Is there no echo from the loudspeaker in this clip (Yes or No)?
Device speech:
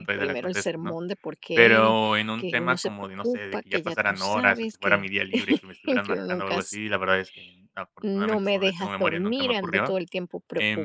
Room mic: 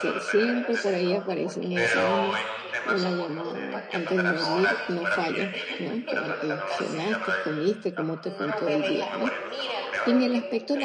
No